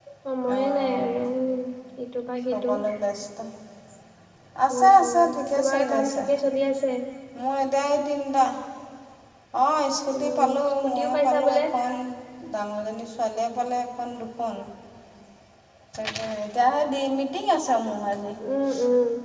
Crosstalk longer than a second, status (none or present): present